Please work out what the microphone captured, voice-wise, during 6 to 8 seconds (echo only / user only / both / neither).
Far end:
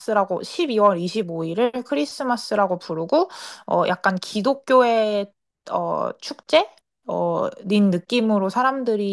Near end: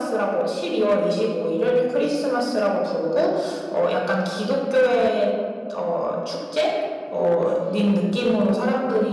both